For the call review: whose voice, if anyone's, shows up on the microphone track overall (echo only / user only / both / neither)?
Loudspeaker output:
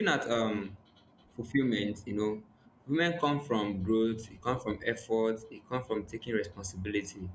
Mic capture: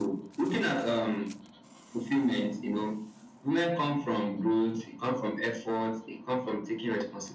echo only